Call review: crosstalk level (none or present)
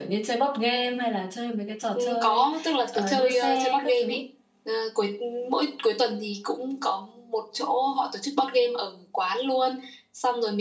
present